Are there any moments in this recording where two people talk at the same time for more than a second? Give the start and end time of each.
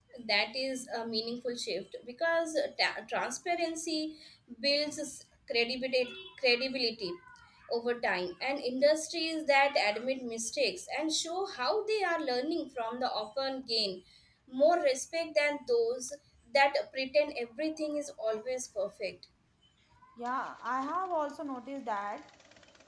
none

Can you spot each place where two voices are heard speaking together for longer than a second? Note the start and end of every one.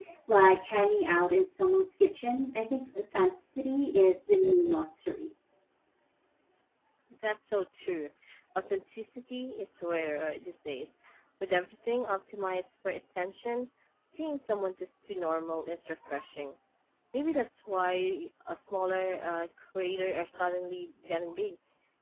none

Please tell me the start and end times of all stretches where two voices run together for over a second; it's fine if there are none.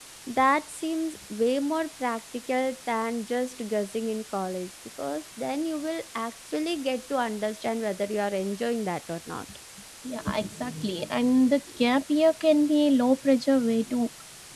none

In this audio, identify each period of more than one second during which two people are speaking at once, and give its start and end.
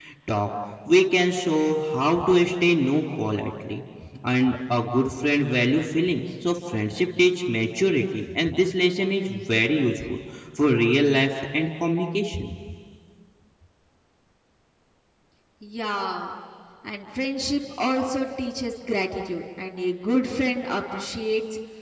none

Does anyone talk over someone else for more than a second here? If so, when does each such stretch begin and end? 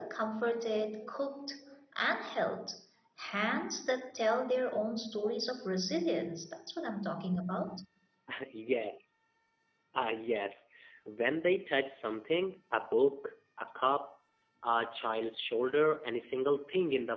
none

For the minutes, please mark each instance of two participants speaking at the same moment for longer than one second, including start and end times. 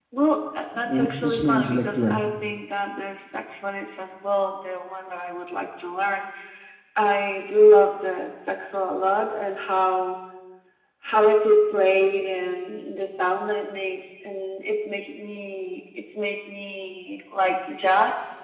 0.8-2.2

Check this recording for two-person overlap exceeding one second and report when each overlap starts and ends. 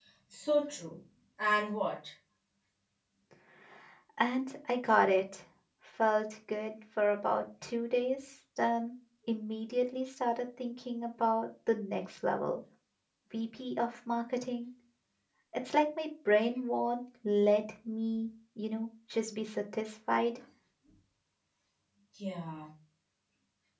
none

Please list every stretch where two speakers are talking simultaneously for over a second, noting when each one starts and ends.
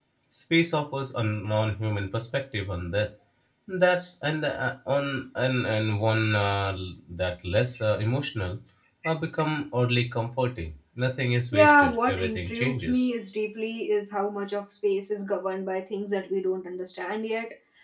11.5-13.1

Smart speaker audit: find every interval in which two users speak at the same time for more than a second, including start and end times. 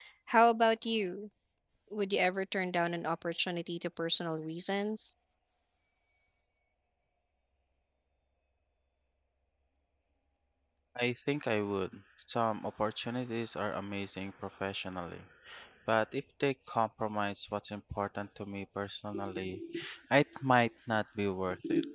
none

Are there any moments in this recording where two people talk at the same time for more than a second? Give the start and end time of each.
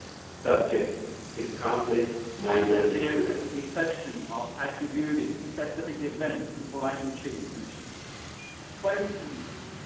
2.5-3.7

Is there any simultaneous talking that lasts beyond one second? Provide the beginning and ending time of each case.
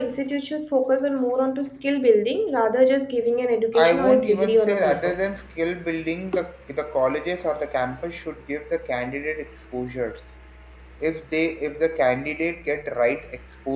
3.8-5.1

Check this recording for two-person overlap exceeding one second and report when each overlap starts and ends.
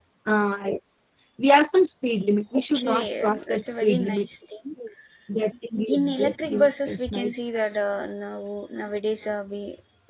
2.5-4.3, 6.0-7.3

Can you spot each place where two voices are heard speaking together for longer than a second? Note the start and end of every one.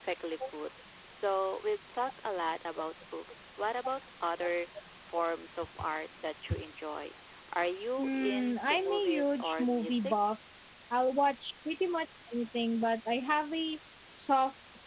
8.0-10.1

